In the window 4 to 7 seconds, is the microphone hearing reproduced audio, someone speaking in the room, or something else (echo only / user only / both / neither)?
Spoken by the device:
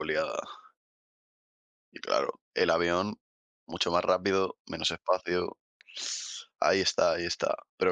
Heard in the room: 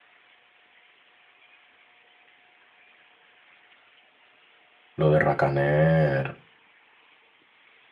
user only